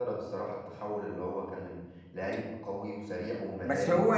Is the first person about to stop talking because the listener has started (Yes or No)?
Yes